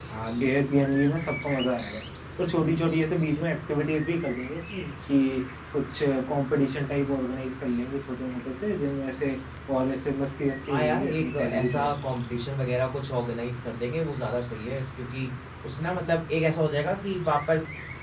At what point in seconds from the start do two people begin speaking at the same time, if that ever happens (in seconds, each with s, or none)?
10.7 s